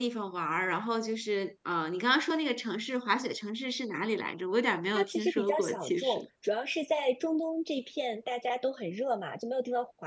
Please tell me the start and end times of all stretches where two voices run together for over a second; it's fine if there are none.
4.9-6.2

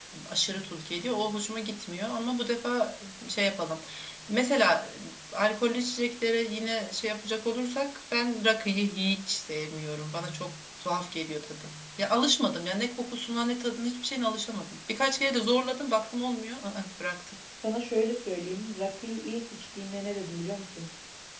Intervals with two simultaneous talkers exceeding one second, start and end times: none

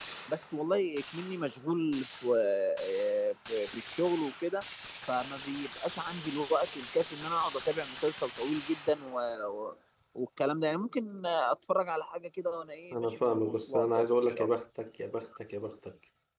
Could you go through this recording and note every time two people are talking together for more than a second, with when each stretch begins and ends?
12.9-14.5

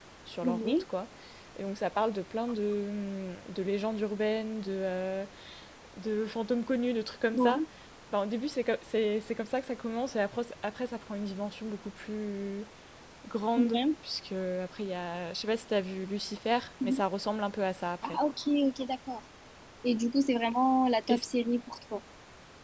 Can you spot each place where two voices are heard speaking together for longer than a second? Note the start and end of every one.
none

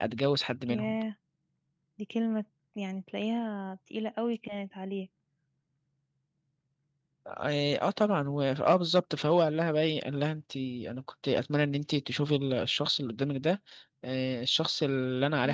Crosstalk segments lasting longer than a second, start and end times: none

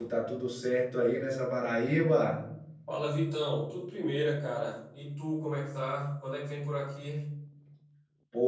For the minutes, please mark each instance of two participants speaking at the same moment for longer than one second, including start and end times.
none

